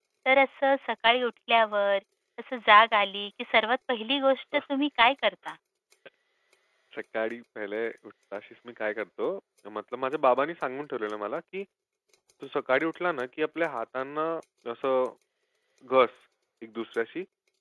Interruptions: none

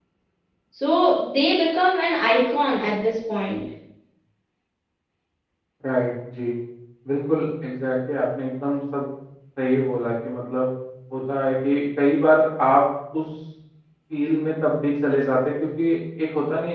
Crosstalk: none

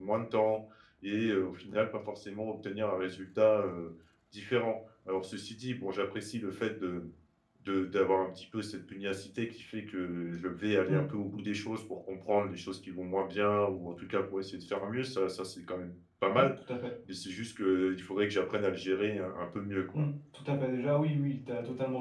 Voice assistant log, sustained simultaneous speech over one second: none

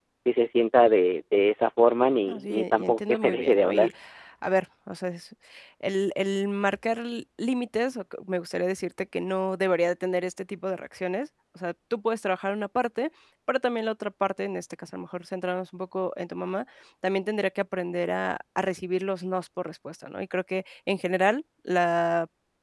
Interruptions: present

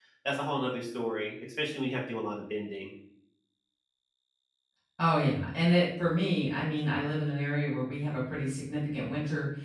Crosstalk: none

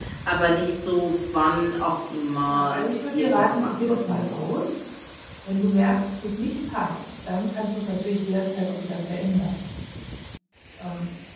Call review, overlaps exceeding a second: present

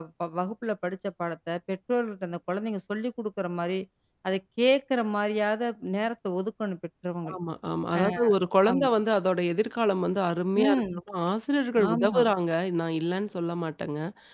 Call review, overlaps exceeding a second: none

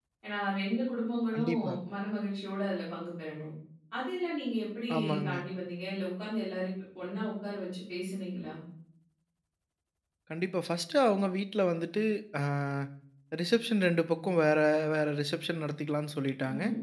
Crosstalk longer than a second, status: none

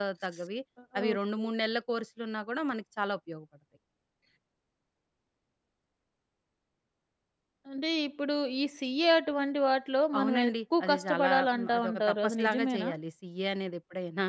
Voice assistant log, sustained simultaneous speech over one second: present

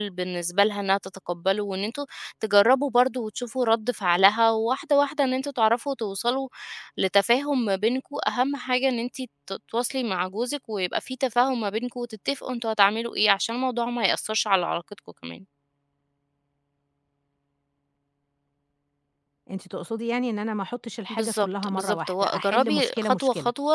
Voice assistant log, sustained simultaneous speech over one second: present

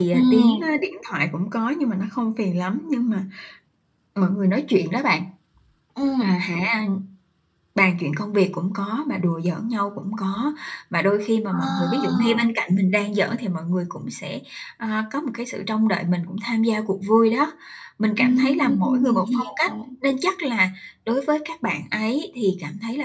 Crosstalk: present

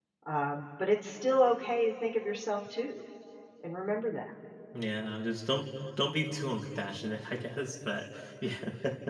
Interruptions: none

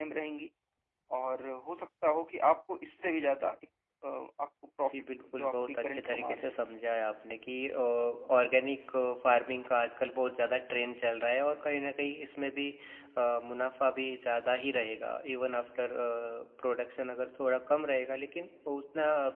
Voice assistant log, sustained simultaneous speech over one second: present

